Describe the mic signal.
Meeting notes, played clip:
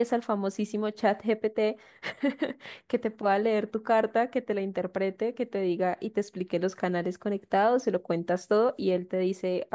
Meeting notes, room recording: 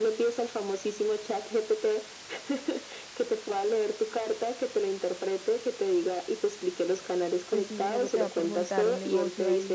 both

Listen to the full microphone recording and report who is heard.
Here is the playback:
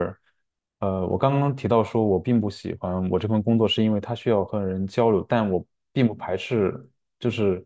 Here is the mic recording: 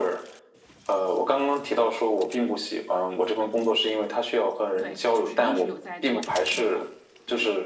both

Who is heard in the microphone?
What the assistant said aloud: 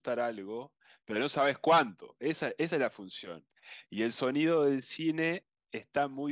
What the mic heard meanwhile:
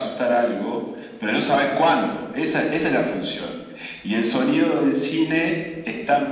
echo only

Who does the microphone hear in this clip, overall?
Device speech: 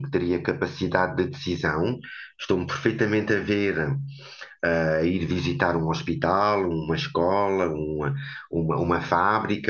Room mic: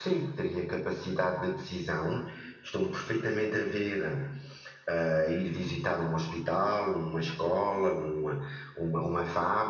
echo only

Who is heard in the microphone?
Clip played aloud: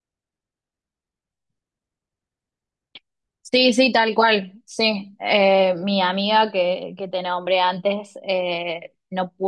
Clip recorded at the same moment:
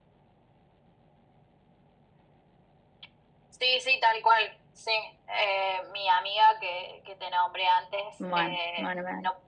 both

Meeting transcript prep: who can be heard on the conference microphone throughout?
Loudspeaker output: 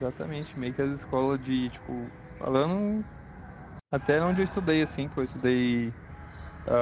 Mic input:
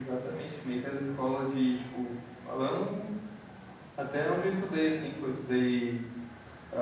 echo only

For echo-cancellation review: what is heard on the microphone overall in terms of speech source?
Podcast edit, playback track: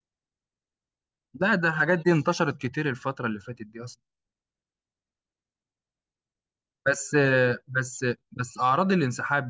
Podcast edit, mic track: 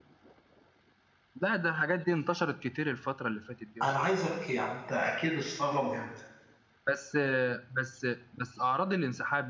both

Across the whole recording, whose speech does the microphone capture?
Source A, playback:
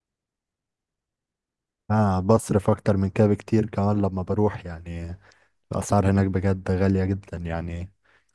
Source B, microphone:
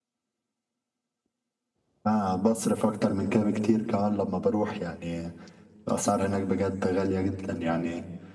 echo only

